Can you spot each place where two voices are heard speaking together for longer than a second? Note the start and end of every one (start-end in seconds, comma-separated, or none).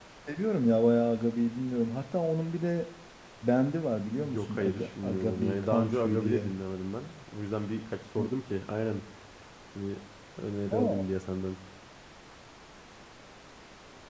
4.2-6.5